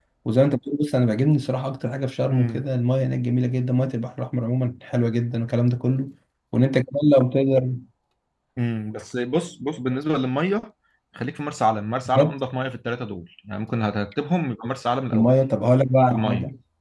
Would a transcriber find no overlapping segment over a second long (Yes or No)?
Yes